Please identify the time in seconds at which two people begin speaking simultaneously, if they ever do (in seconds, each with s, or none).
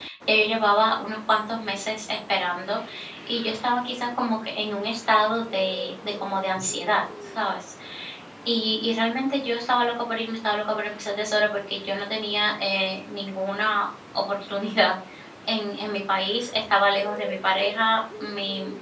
none